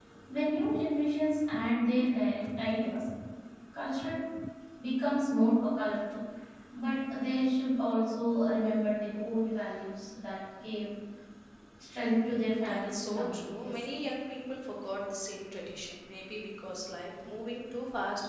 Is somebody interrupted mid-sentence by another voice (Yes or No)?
Yes